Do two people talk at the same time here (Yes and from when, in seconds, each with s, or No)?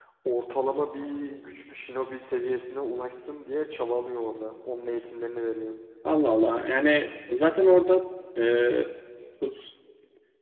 No